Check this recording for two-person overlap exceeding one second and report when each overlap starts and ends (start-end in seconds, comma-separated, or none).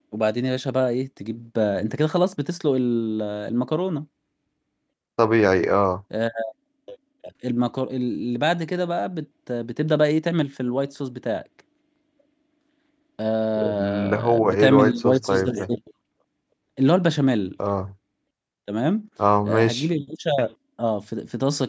13.6-15.7